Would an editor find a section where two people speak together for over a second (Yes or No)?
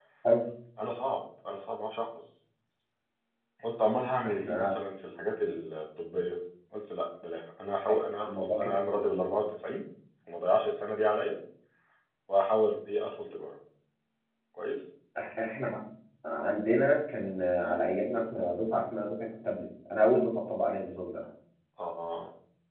Yes